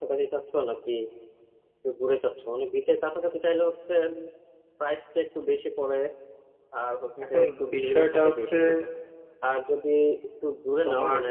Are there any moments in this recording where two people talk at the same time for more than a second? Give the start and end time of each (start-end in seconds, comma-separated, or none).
7.2-8.5